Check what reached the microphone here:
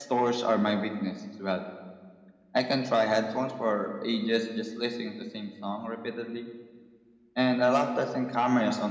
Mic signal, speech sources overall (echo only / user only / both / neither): echo only